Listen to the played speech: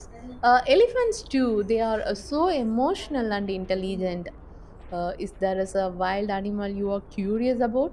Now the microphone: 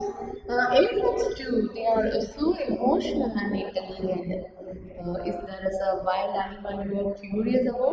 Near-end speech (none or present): none